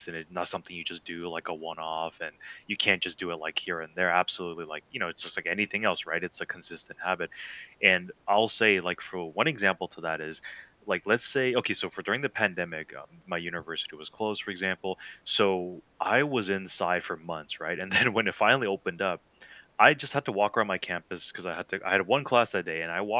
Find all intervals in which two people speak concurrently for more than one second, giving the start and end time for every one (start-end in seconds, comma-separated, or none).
none